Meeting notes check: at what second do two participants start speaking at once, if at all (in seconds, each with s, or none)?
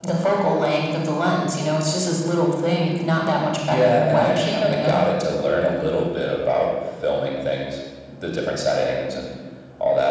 3.7 s